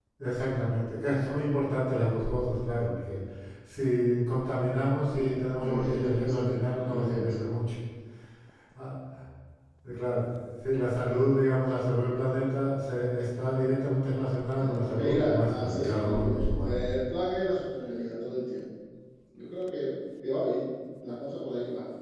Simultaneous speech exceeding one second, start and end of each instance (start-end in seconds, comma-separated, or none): 5.1-7.4, 14.6-16.9